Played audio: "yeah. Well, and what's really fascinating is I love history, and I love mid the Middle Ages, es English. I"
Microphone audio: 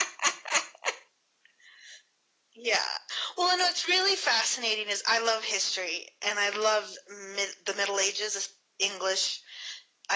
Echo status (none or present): present